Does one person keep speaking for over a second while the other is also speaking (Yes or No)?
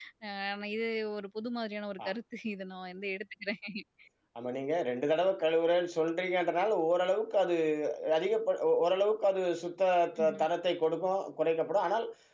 No